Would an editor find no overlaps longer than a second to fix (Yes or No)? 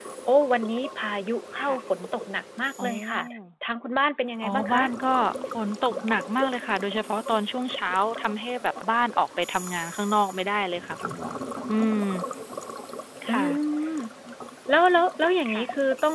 Yes